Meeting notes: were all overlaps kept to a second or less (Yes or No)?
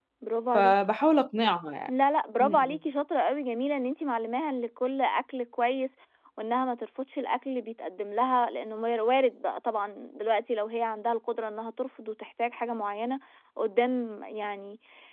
Yes